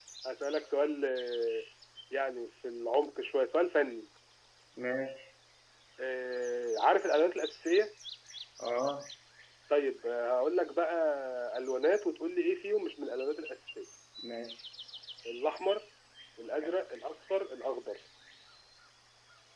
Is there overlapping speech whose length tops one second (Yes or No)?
No